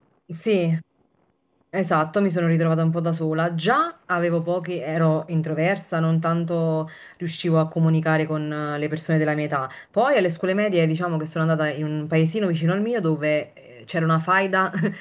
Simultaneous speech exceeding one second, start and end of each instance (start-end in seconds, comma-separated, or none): none